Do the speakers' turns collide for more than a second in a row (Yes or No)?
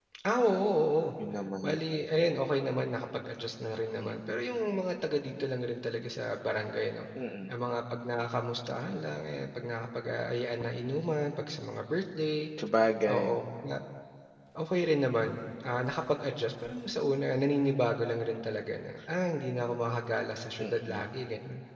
No